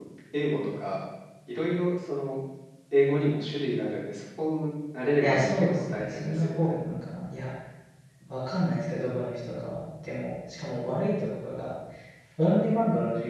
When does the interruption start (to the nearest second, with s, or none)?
5 s